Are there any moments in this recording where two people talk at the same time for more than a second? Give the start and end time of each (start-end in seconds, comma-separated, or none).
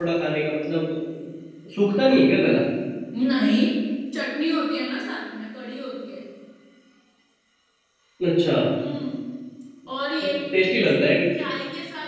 none